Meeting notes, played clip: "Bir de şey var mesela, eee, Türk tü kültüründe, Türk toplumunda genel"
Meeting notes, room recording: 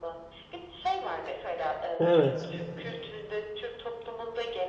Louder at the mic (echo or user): user